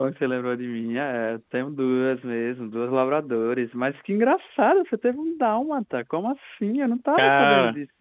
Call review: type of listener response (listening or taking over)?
listening